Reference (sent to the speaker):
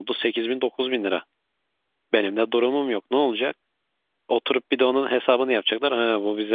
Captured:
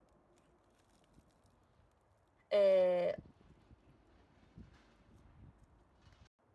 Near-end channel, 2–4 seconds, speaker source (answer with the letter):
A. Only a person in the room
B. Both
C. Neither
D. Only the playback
A